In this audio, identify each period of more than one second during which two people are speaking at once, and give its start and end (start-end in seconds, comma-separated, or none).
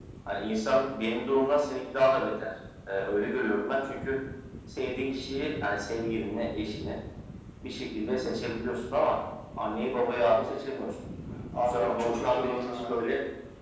11.6-13.0